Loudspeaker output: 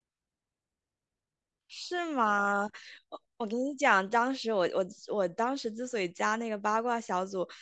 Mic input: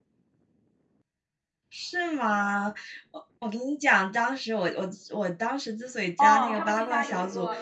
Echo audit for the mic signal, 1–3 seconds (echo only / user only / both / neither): echo only